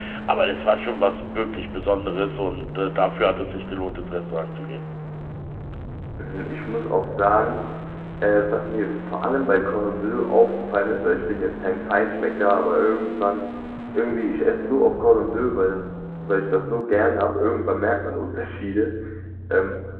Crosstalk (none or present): none